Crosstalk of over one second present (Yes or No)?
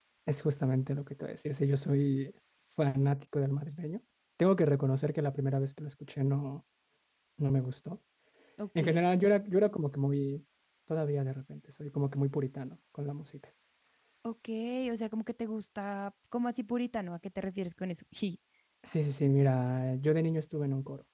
No